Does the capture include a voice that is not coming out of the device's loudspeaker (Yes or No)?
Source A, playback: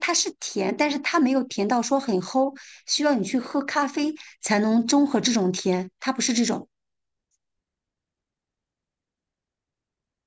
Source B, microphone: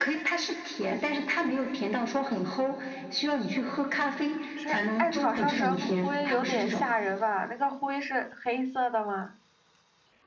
Yes